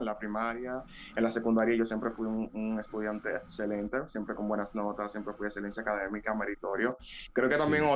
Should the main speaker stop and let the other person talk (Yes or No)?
No